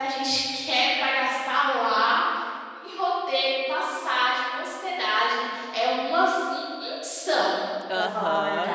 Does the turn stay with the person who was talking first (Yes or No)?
No